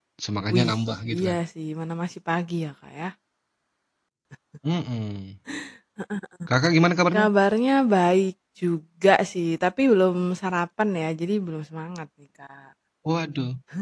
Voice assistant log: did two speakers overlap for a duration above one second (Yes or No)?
No